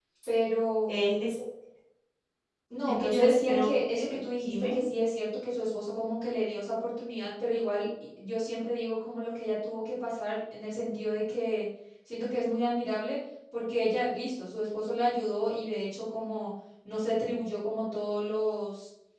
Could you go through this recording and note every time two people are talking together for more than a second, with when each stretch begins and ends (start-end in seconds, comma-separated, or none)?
2.9-4.8